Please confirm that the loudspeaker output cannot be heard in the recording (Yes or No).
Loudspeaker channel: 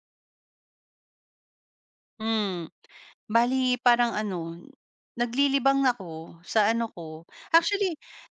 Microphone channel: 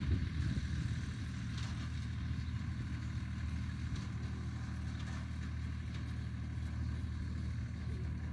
Yes